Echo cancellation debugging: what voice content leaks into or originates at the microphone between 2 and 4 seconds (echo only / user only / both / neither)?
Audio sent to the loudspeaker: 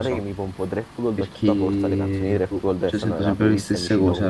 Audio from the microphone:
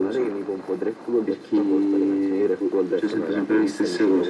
echo only